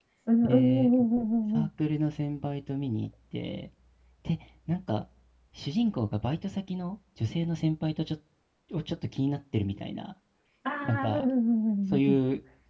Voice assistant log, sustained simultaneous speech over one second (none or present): none